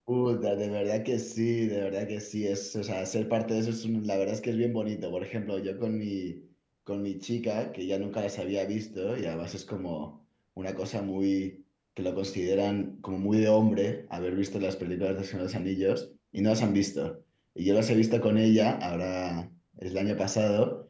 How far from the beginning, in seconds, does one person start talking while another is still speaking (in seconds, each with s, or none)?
none